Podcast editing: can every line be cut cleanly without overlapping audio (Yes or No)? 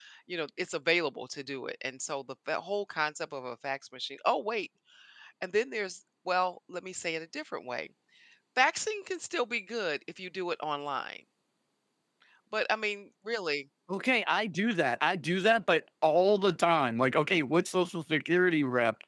Yes